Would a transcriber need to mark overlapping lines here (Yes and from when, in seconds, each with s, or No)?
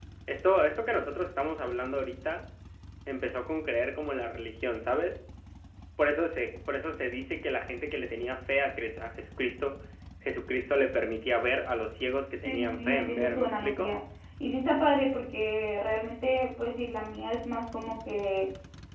Yes, from 12.4 s